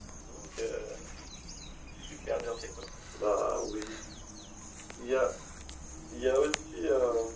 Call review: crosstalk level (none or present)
none